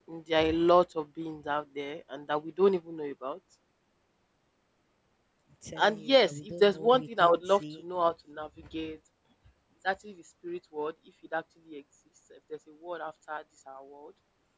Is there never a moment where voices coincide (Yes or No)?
No